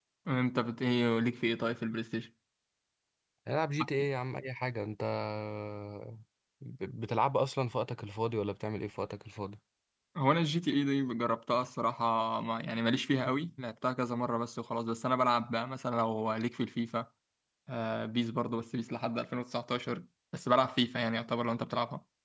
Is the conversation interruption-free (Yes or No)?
Yes